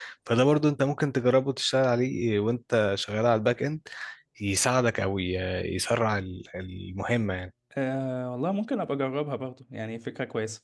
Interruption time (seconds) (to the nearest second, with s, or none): none